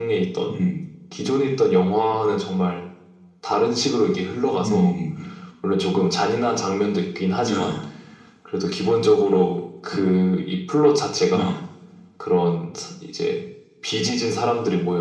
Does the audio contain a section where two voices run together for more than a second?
No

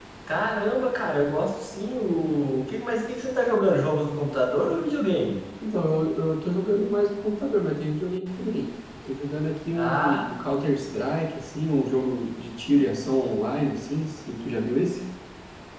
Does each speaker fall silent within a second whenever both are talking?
Yes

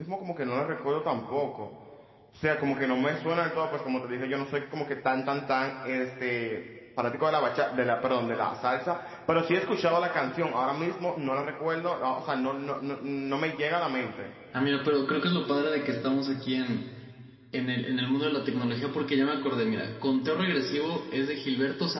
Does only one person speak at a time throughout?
Yes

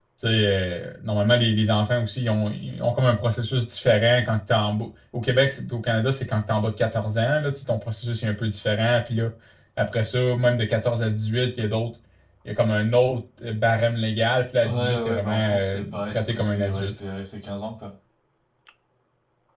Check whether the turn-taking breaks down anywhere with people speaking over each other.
Yes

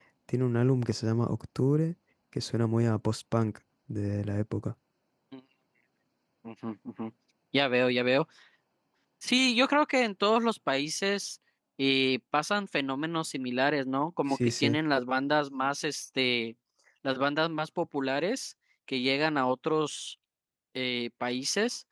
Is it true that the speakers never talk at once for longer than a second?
Yes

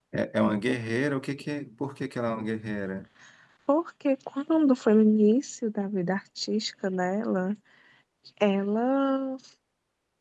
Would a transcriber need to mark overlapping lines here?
No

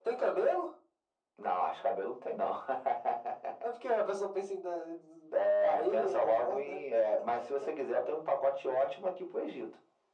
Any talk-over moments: Yes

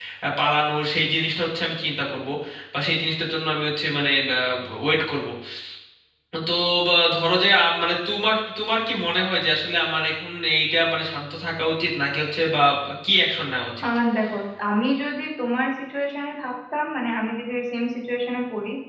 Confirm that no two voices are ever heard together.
Yes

